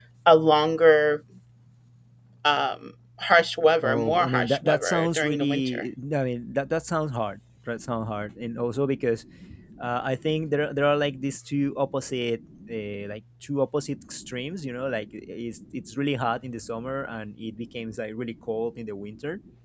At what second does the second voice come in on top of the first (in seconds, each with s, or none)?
3.8 s